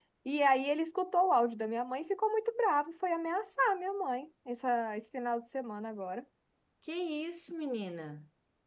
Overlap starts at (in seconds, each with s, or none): none